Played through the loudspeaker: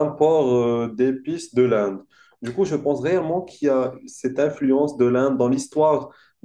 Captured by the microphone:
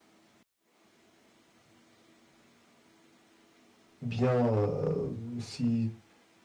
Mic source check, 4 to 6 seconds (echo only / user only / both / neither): user only